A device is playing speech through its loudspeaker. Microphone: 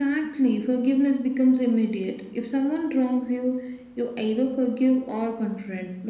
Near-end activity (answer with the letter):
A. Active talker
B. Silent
B